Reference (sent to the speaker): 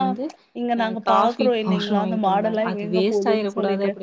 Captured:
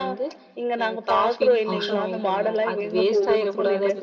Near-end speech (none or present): present